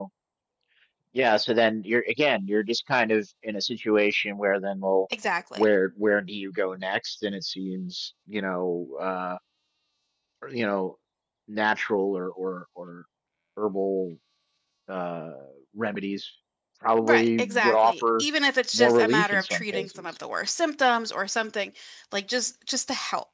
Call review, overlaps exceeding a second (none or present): present